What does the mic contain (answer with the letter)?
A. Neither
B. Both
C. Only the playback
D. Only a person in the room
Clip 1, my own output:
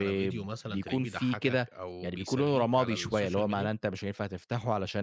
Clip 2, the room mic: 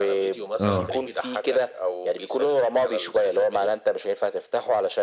B